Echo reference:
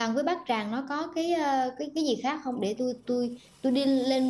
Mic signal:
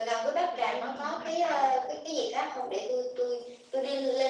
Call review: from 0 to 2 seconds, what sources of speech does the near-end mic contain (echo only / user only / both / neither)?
both